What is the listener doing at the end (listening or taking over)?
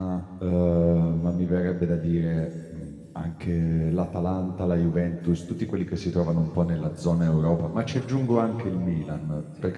listening